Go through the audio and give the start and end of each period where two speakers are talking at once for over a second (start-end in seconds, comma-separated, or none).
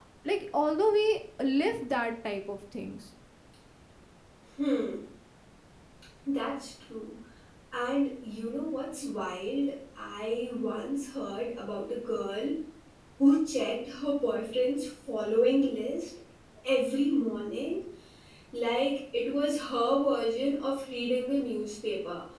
none